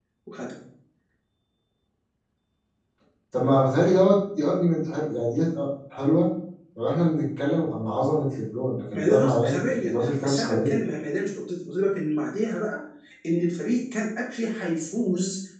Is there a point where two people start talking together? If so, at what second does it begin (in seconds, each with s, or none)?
8.9 s